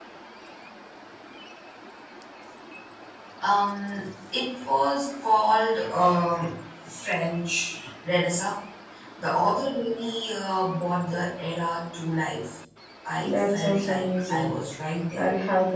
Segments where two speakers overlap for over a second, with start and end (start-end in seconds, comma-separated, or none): 13.2-14.5